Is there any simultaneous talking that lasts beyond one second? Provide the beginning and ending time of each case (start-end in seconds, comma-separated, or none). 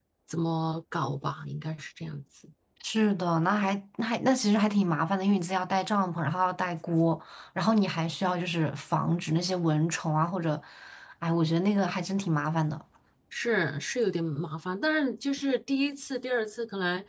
none